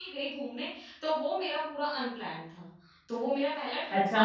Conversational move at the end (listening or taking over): taking over